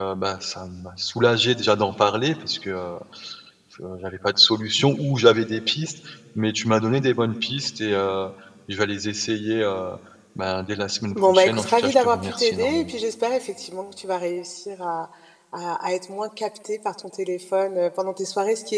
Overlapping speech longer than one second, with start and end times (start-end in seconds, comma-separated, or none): 11.2-12.9